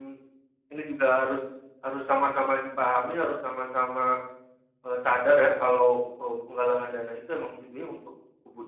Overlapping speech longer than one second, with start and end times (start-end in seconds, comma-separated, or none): none